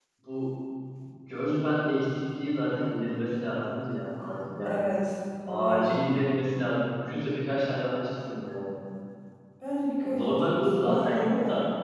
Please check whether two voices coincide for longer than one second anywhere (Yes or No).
Yes